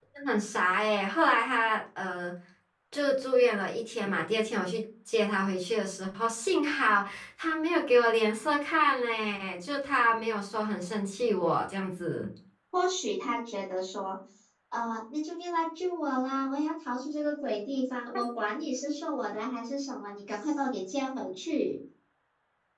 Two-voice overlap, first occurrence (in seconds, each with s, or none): none